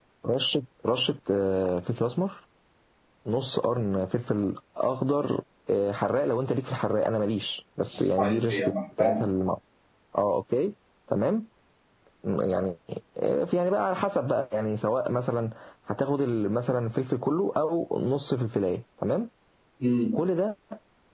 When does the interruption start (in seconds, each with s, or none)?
7.9 s